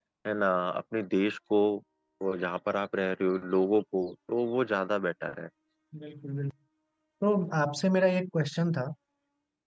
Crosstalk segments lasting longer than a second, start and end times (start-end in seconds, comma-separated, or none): none